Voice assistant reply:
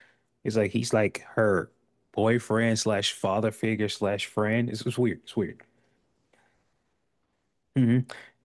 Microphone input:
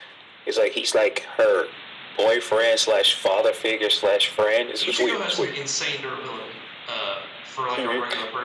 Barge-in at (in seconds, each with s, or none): 4.8 s